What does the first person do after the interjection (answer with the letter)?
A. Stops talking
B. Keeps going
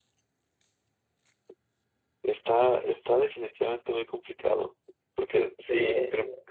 B